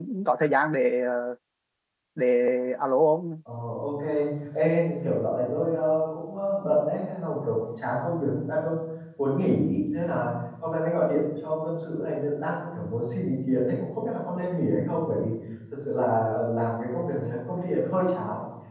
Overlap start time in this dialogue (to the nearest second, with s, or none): none